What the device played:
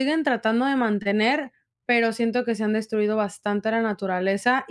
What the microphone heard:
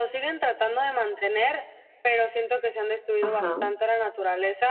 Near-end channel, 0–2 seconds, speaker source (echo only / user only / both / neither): echo only